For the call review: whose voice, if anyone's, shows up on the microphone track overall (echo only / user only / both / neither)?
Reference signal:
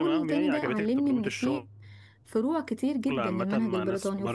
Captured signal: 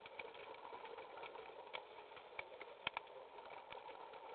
neither